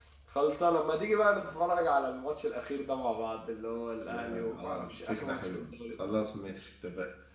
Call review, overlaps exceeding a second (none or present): present